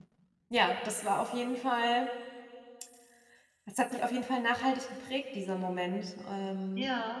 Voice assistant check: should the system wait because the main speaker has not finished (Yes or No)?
No